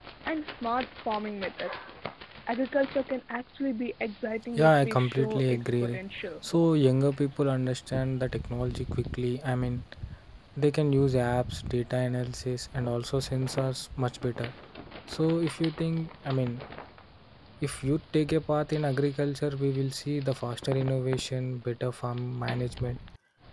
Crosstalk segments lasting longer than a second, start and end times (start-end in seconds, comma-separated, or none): 4.6-6.0